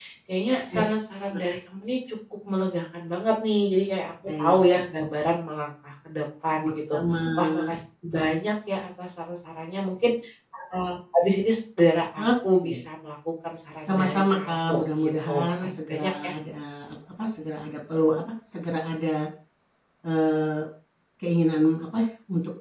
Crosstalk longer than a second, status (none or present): present